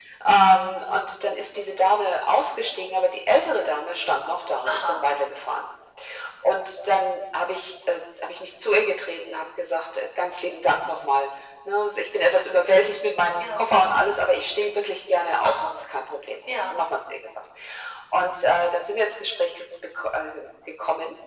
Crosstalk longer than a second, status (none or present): none